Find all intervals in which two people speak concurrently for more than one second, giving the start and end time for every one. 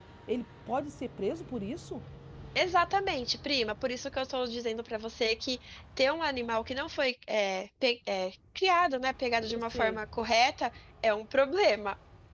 none

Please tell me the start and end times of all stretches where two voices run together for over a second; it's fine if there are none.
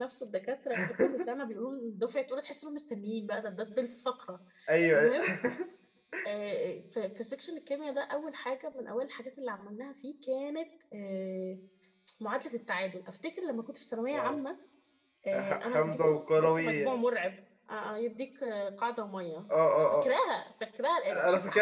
15.5-17.0

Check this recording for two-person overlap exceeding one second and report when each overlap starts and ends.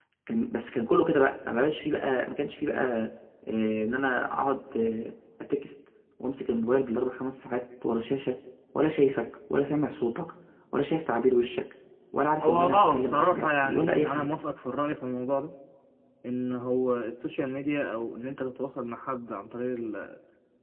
12.4-14.3

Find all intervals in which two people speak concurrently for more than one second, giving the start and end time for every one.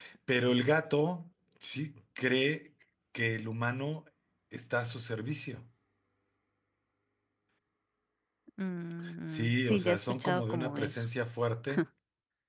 9.3-11.0

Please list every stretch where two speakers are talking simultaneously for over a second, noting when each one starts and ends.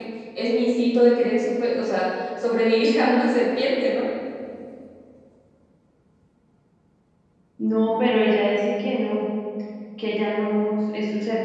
none

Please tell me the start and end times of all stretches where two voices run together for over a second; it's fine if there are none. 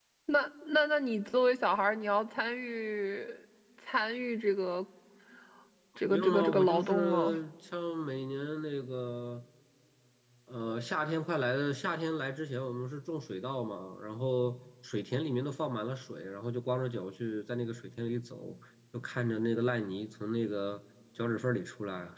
6.1-7.4

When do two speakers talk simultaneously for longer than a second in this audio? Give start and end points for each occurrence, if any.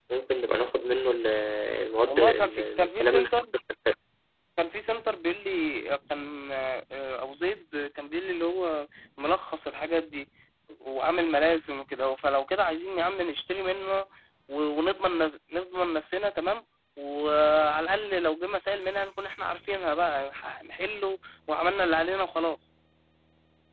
2.1-3.3

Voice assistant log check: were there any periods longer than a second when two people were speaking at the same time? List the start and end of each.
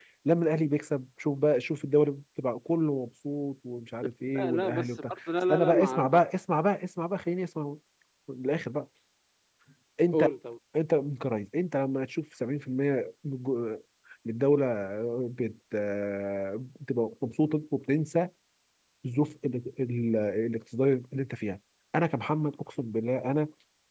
4.3-6.2

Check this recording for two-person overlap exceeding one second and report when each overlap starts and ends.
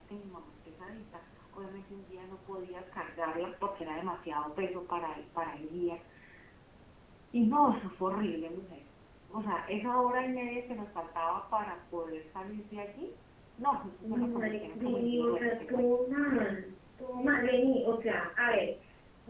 14.0-15.8

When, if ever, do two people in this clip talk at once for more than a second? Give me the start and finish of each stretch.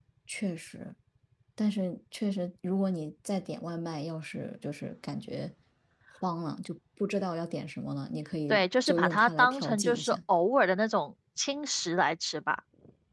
8.5-10.2

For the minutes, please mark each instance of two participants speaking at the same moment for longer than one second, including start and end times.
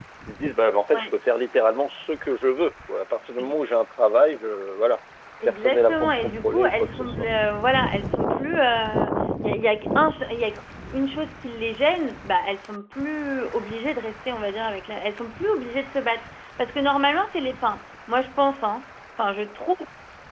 5.4-7.2

